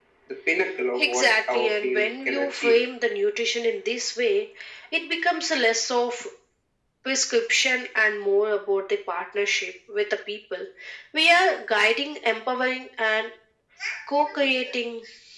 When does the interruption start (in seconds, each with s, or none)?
1.0 s